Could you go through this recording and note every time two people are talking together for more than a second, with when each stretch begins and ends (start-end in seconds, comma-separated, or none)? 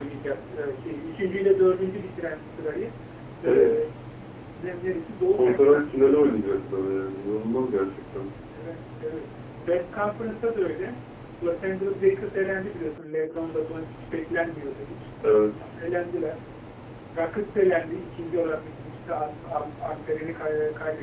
5.3-6.6